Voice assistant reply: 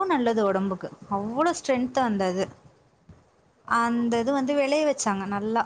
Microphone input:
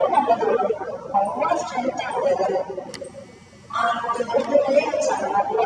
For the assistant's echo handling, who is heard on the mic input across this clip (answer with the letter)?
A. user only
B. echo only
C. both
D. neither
B